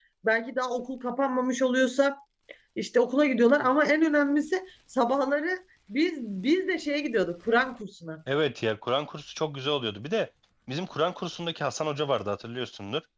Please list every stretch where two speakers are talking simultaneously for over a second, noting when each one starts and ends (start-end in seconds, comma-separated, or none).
none